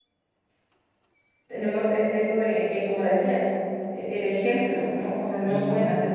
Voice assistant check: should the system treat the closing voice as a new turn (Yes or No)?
No